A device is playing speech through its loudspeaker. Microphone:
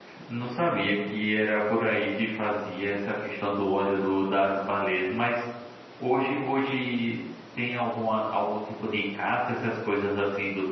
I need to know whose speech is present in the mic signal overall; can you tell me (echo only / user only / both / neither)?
user only